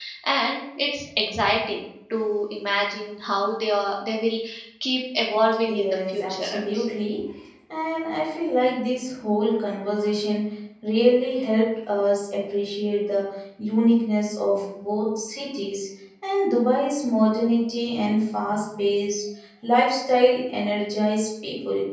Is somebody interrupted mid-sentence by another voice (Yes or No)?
Yes